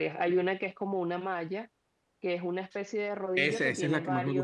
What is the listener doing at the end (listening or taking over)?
taking over